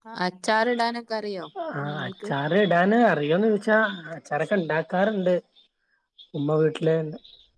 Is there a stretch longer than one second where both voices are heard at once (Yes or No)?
No